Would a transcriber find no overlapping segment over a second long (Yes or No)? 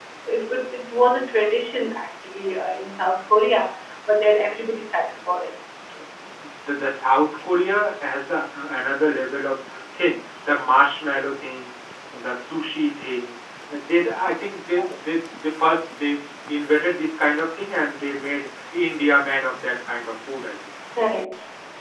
Yes